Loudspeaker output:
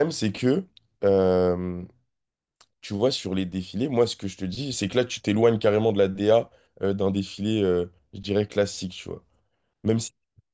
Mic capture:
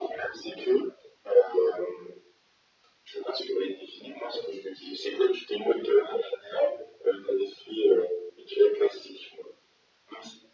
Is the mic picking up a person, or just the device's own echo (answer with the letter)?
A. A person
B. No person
B